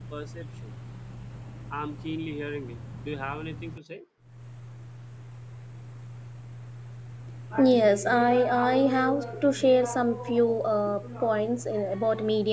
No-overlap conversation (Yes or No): Yes